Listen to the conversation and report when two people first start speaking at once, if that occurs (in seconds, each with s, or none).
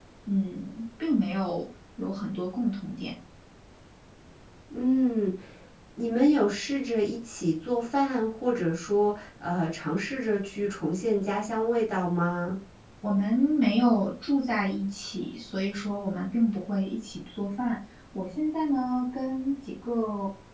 none